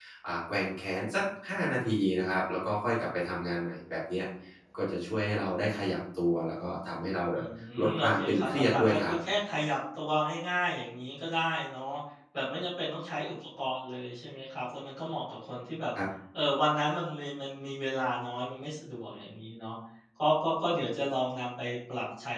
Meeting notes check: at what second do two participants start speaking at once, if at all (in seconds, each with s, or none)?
7.9 s